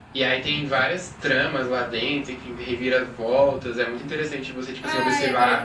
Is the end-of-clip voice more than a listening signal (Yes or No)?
Yes